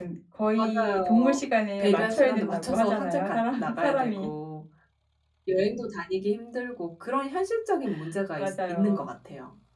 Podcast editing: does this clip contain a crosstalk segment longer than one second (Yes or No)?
Yes